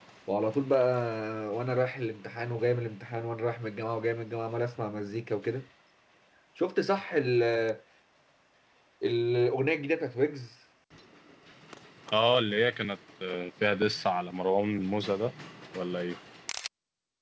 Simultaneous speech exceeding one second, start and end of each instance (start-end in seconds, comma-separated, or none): none